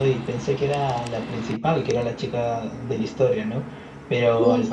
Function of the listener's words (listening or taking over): listening